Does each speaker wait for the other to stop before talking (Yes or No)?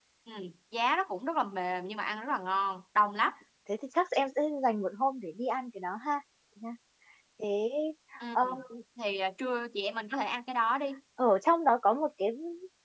Yes